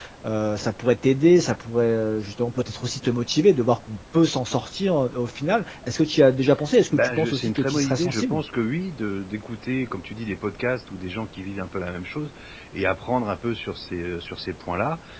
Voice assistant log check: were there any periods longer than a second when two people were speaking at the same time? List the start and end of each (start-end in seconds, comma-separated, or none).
6.9-8.4